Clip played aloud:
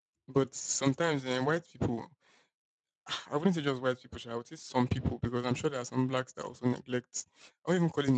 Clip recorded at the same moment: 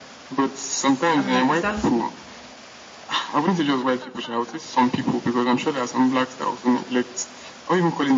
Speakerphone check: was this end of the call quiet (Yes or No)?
No